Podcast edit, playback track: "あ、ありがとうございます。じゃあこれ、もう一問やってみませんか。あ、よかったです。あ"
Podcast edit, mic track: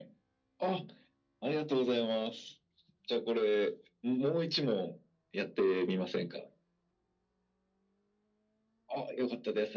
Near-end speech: none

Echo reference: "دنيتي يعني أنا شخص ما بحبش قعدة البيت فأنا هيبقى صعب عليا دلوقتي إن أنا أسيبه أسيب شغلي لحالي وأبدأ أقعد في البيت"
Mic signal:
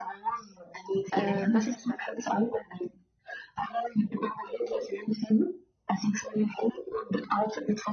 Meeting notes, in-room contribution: present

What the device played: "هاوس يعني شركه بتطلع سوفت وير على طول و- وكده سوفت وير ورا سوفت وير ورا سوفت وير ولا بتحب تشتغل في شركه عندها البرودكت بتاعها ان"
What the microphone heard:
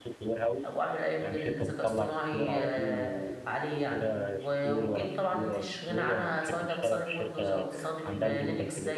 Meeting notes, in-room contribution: present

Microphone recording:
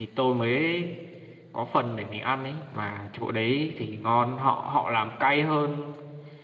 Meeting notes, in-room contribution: present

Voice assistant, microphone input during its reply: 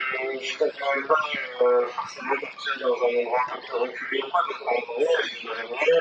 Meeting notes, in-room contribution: none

